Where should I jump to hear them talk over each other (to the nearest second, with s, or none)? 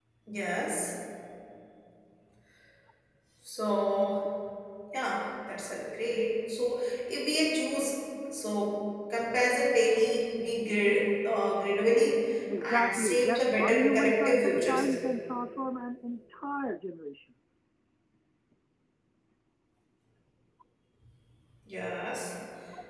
13 s